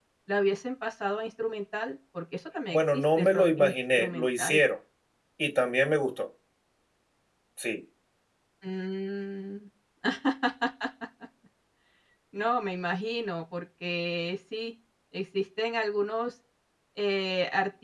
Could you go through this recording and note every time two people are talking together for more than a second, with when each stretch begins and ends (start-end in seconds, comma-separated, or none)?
2.7-4.6